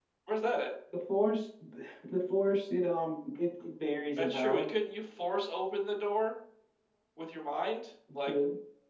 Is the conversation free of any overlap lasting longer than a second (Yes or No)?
Yes